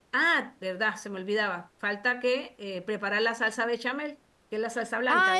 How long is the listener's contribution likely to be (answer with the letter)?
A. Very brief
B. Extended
B